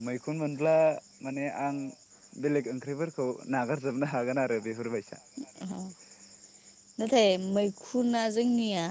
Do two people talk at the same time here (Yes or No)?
No